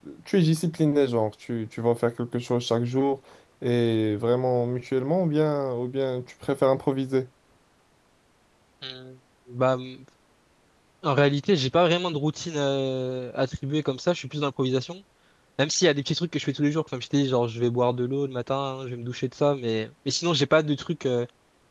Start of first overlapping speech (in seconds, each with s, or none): none